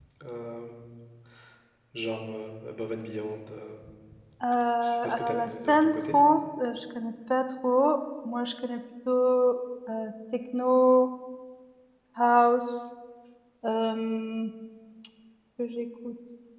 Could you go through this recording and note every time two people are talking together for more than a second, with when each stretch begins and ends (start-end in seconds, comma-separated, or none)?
4.8-6.2